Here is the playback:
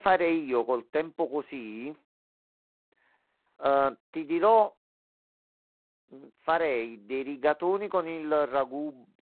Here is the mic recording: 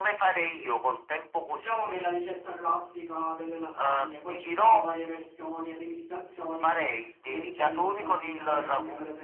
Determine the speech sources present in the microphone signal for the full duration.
both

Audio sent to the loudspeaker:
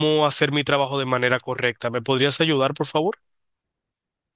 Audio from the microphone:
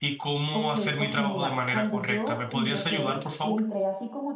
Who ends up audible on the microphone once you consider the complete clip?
both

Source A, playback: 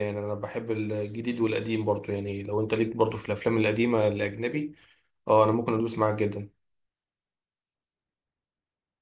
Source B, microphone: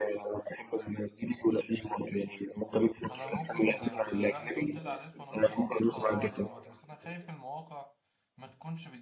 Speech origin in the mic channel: both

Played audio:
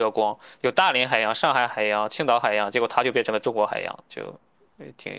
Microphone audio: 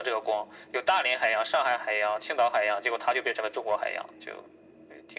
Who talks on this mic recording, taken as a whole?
echo only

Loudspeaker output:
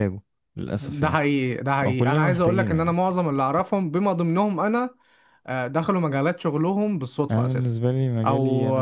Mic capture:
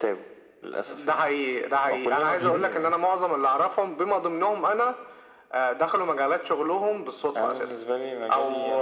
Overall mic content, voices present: both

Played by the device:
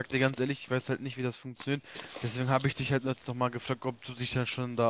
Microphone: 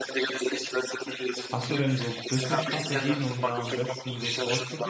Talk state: both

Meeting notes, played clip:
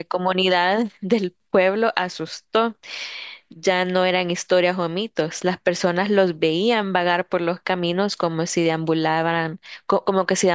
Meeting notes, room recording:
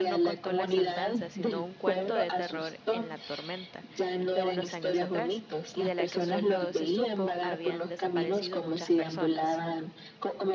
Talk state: both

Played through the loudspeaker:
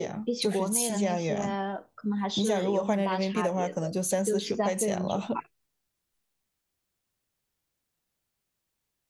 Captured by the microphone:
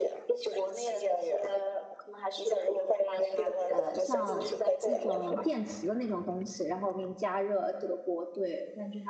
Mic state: both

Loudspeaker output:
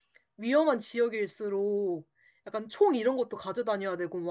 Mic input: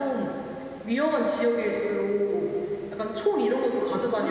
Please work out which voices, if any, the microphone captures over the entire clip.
both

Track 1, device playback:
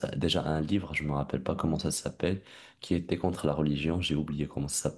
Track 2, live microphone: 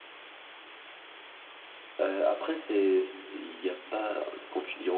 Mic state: user only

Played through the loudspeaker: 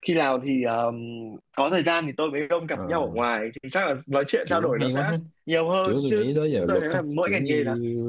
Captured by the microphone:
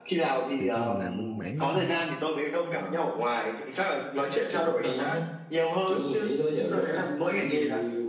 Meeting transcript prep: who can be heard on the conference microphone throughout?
both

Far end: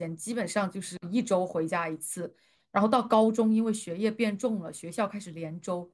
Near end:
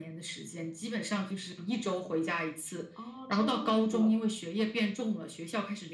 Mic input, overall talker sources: both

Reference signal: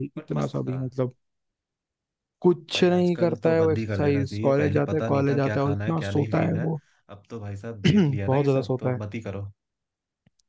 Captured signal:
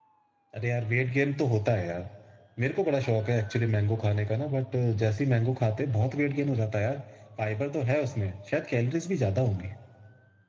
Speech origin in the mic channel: user only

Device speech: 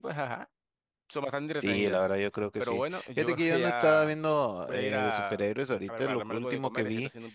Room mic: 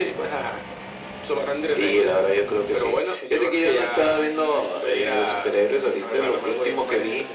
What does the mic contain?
echo only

